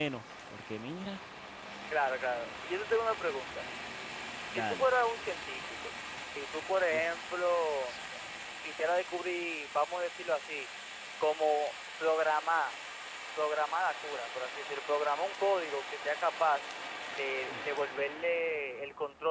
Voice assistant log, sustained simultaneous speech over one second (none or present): none